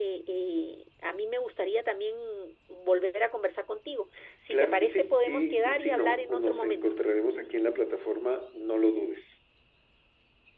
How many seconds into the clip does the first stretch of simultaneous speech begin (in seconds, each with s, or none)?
4.5 s